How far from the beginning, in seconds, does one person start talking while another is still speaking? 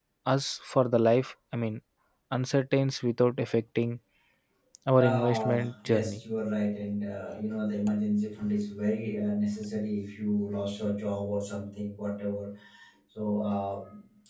5.0 s

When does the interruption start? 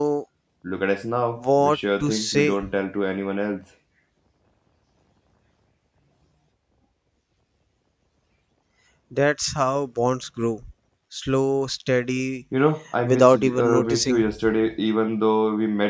1.4 s

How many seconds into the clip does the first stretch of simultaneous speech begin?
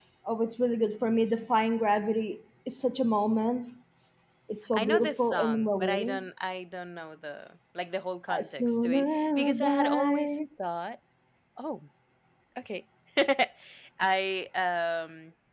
4.7 s

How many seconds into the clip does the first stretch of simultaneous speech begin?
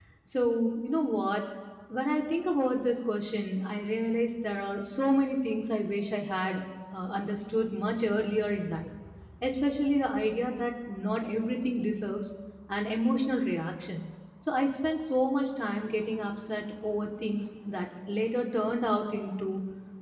none

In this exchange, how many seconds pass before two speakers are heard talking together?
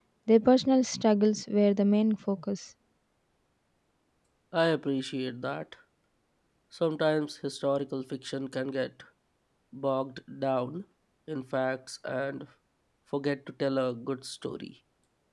none

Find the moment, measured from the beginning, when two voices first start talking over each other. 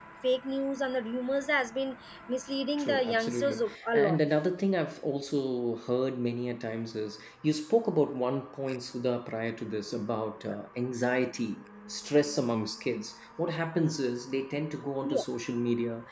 2.8 s

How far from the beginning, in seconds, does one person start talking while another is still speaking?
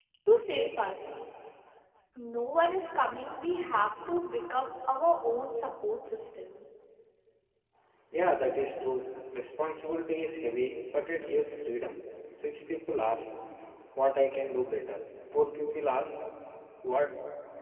none

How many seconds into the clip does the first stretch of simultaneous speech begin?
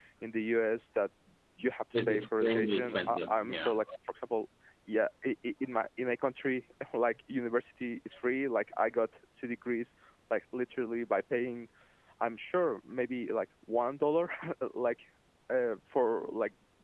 2.1 s

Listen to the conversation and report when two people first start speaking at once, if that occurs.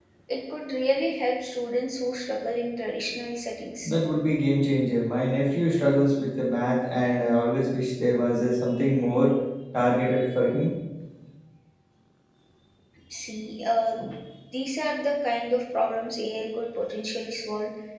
none

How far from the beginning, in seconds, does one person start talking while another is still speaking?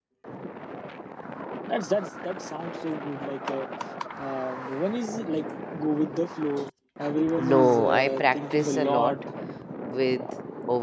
7.4 s

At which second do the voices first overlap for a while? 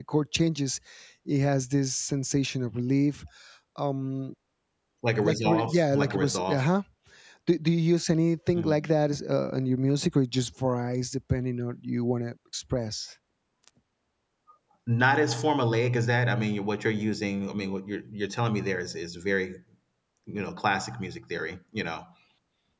5.2 s

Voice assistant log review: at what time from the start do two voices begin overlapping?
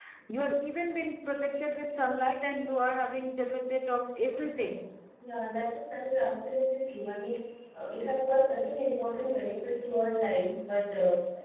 none

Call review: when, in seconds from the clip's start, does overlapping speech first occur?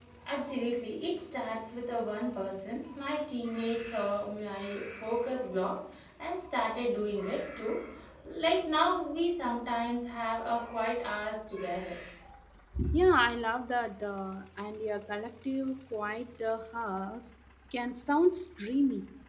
none

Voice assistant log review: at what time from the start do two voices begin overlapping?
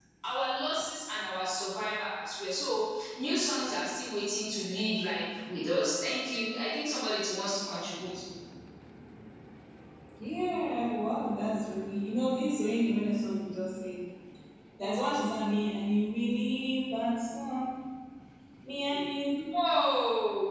none

